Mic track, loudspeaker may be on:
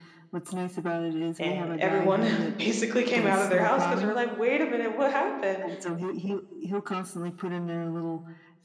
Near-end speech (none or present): present